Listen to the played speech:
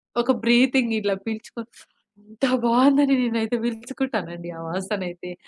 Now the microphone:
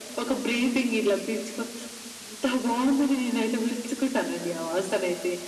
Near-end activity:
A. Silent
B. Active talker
A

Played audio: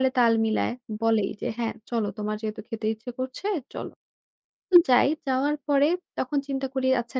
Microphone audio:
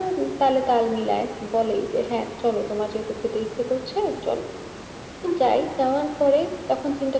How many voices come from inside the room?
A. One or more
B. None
B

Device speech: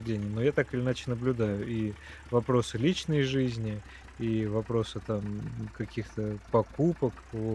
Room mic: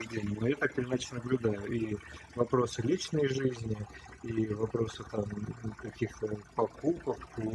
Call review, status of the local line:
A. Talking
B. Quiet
B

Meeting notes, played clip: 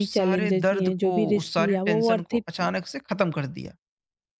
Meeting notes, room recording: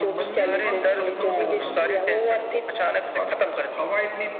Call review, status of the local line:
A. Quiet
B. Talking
B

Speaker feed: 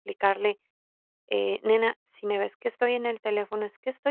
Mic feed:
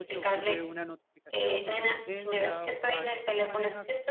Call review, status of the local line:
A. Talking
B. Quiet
A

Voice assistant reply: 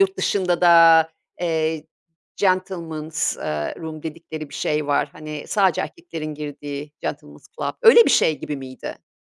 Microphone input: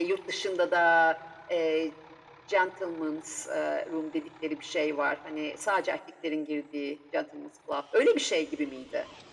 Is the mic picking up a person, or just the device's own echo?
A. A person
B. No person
B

